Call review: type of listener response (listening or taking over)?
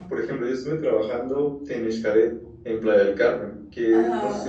listening